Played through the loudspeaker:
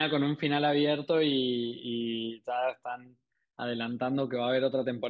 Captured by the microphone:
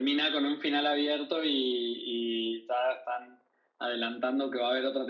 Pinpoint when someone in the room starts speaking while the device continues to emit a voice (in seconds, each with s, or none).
none